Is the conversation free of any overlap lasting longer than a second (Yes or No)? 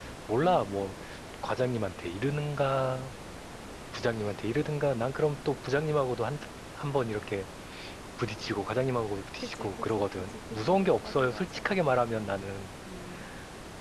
No